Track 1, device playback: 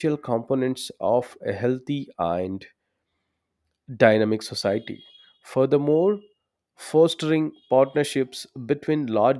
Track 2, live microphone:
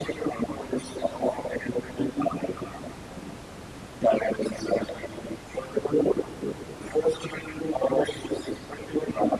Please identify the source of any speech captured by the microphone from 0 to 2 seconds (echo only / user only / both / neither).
echo only